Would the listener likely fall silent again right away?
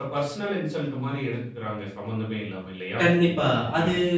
No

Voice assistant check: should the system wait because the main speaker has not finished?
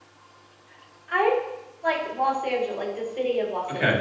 No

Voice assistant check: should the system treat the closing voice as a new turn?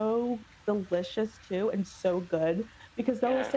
No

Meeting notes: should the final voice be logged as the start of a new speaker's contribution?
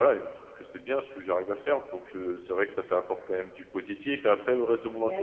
No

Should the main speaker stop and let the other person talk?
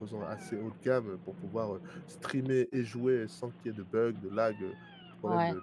Yes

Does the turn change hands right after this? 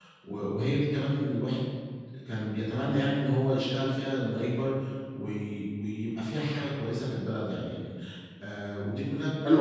Yes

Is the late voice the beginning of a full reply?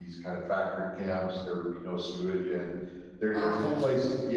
No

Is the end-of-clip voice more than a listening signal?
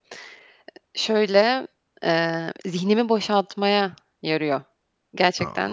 Yes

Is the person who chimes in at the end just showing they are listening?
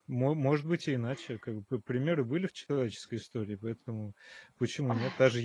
Yes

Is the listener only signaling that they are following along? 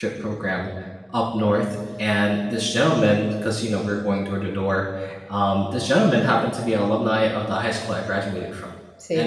Yes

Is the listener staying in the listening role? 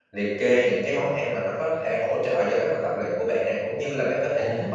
Yes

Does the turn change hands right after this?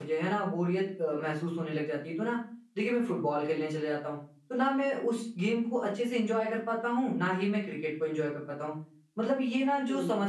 No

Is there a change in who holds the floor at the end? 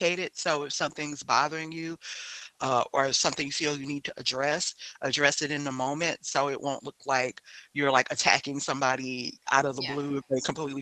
No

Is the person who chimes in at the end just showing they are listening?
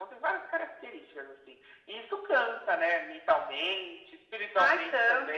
No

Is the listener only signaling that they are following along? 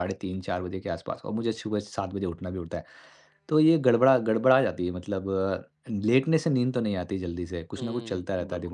No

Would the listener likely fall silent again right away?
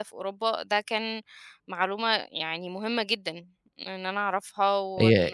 No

